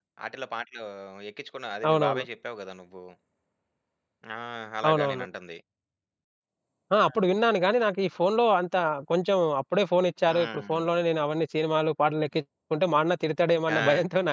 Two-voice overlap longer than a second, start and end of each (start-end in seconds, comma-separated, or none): none